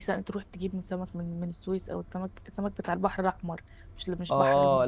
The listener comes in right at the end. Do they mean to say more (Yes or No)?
Yes